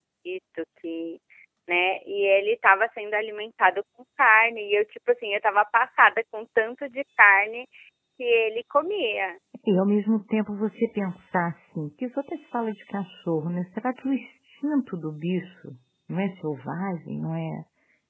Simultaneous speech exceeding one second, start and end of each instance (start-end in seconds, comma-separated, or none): none